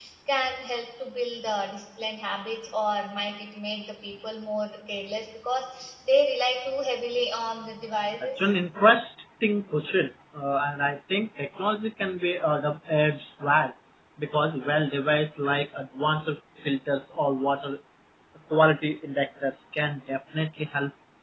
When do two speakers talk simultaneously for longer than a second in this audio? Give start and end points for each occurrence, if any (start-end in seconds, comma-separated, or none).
none